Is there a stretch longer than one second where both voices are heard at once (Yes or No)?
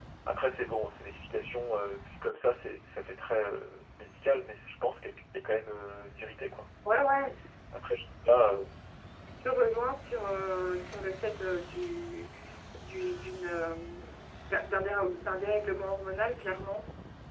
No